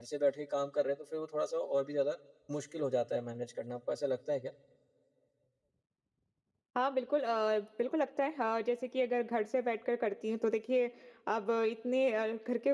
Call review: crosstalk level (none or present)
none